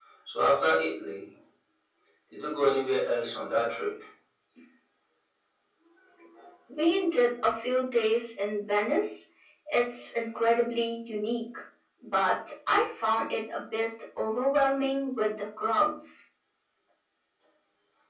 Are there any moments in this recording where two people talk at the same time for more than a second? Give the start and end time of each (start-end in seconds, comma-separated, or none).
none